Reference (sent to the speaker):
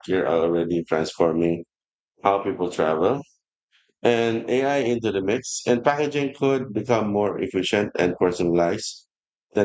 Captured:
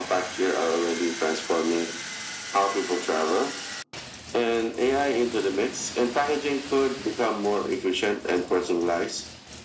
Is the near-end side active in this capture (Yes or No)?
No